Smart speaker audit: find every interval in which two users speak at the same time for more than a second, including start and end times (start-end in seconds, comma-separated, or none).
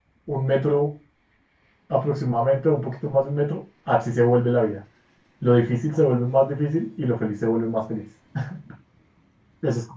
none